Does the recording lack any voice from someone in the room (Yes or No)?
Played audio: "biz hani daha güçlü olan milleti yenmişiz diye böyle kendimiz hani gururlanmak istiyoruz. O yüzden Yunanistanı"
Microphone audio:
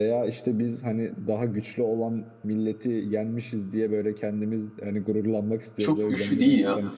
No